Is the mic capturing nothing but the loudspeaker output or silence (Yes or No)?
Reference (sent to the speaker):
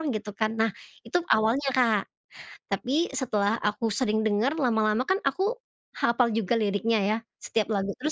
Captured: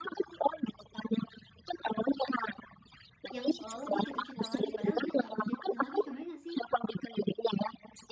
No